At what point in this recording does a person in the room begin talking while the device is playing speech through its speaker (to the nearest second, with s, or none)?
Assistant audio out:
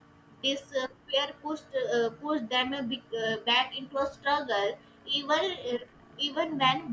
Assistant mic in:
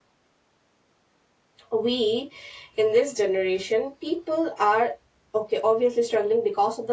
2 s